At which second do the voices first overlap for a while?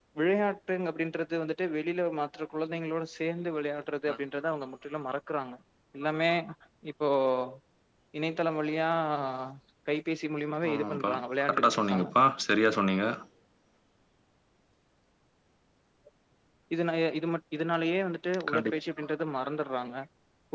10.7 s

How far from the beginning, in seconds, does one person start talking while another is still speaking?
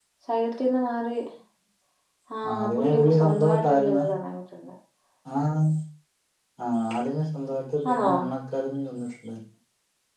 2.5 s

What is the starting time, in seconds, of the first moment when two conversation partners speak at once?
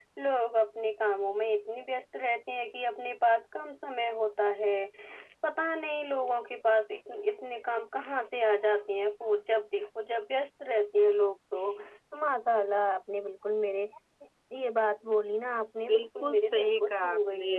15.9 s

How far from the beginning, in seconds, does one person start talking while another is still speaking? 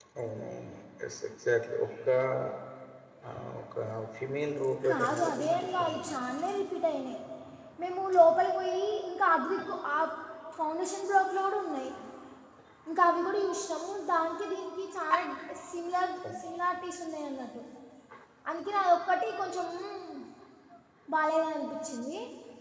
4.9 s

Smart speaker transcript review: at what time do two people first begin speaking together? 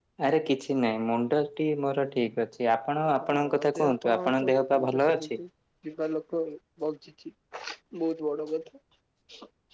3.1 s

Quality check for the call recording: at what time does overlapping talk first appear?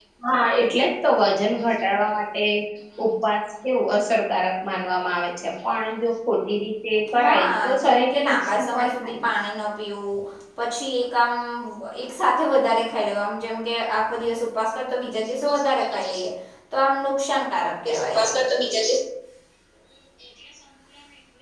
7.2 s

